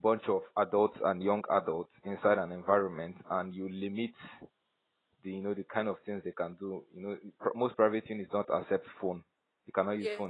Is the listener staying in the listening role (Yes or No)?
Yes